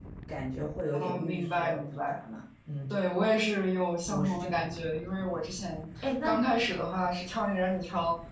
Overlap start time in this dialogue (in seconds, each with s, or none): 0.9 s